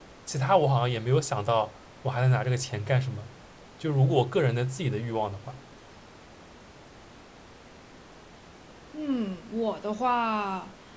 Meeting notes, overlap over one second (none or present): none